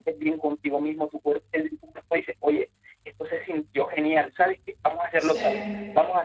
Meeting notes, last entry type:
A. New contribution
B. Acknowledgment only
B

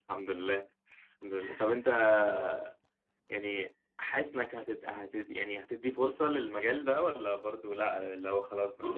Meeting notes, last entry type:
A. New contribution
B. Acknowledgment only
A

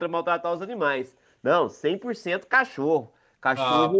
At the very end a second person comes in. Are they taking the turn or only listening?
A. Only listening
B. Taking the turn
A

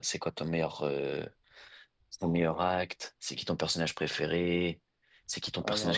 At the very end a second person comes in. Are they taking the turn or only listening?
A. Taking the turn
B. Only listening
B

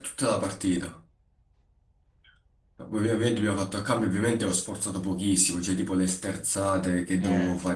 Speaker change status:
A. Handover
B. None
B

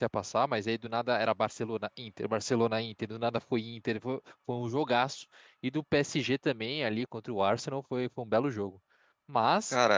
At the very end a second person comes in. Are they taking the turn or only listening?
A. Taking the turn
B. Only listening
B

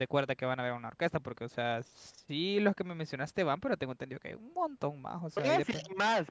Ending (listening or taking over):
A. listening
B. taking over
B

